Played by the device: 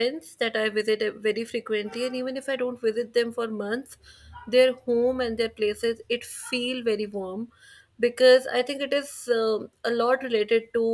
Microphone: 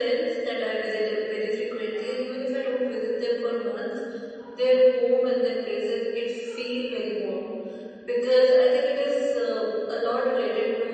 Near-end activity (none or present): none